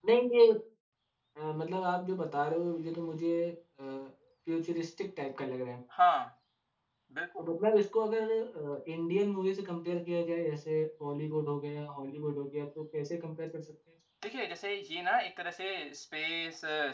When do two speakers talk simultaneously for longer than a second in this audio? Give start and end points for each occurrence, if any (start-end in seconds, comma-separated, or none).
none